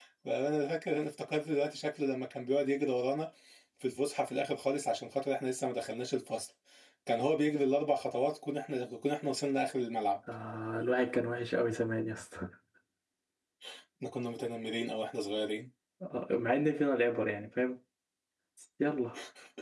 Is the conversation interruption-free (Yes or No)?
Yes